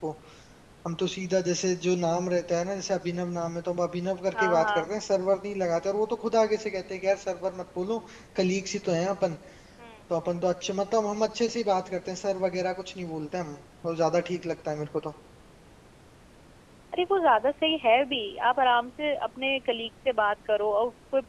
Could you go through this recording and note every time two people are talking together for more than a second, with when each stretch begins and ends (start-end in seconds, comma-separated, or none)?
none